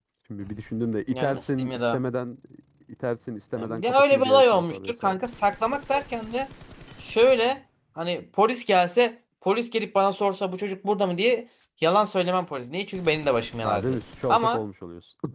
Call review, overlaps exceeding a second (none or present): present